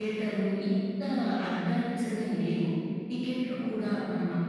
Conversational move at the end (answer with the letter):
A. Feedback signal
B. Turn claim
A